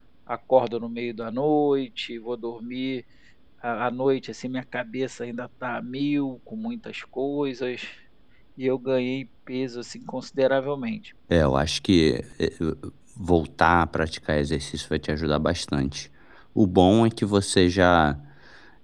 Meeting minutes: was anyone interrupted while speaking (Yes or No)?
No